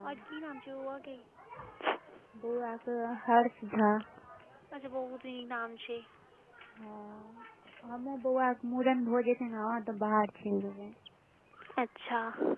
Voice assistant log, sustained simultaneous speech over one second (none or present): none